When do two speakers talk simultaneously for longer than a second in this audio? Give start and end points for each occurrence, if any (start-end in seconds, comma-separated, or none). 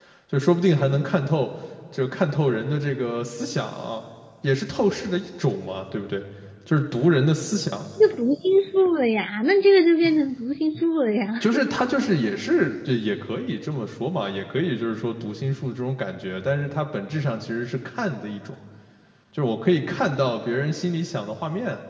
none